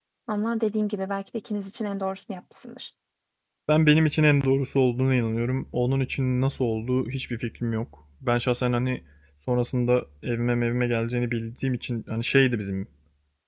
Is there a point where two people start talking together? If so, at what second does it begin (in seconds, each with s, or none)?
none